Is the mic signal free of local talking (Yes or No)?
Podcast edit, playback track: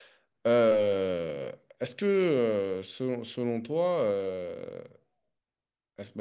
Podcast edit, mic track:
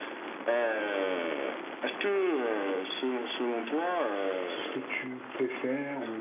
No